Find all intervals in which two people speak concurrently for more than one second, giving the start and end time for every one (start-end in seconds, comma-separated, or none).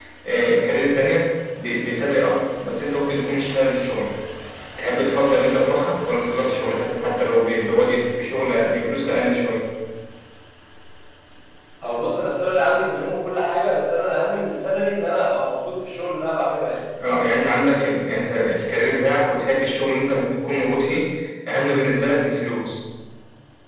none